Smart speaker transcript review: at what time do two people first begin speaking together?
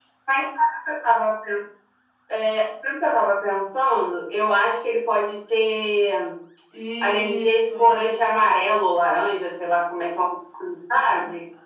7 s

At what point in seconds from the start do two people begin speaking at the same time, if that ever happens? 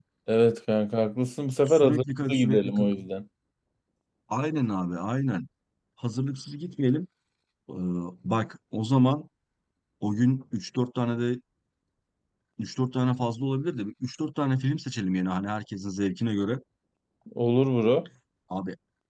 2 s

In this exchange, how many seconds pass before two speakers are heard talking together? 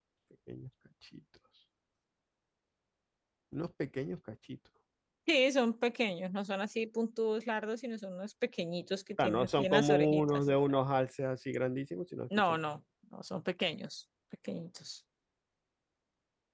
9 s

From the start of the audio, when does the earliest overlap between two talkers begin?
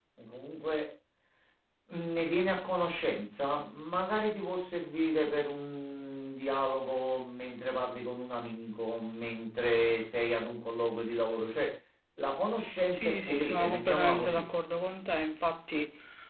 13 s

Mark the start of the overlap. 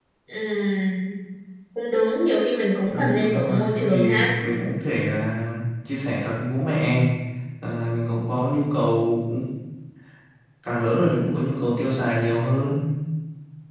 3 s

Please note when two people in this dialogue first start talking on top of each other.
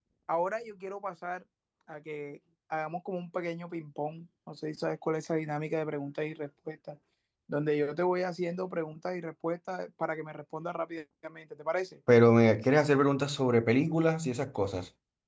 none

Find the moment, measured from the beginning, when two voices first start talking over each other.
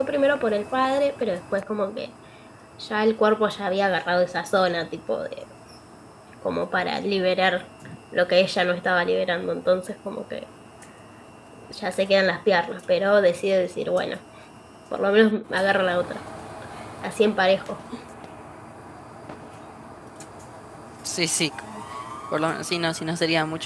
none

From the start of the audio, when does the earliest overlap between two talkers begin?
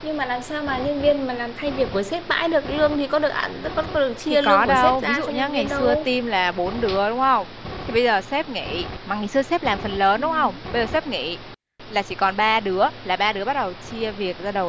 4 s

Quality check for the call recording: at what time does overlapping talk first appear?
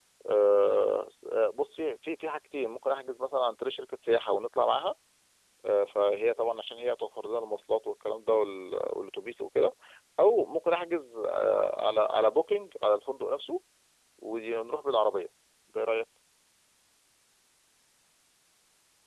none

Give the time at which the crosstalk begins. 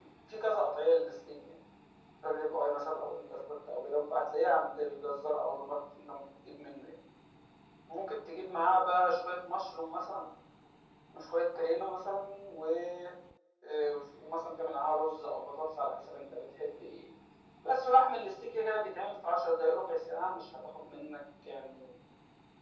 none

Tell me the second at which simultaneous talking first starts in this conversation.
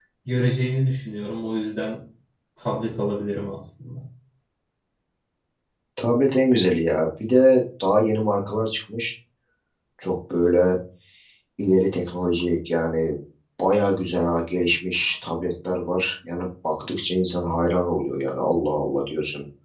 none

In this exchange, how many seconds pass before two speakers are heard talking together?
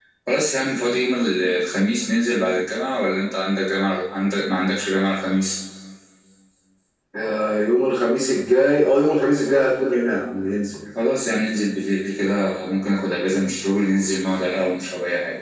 none

